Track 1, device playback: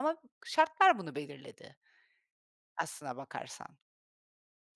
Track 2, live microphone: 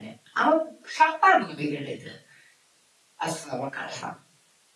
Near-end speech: none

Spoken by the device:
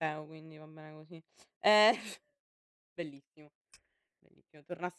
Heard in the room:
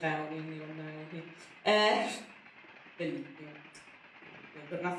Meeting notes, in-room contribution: none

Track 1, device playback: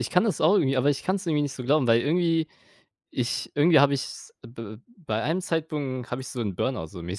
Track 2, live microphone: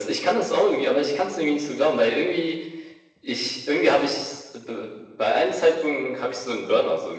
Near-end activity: none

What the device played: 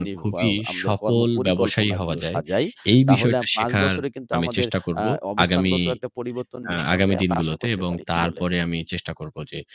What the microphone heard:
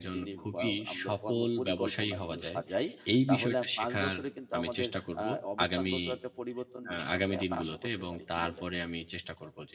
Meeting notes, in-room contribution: none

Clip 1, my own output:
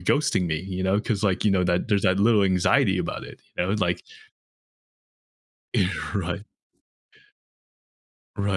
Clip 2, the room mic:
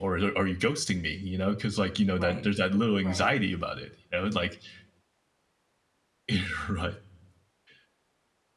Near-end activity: present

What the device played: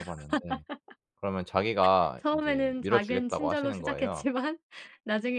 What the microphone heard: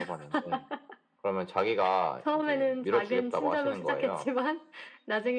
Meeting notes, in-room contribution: none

